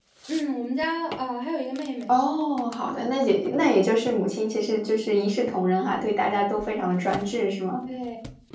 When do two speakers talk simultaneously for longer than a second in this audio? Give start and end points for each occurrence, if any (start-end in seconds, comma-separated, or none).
none